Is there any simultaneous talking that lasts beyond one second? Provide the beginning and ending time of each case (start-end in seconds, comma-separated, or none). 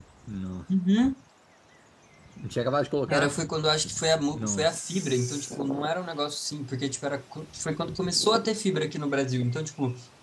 4.3-5.6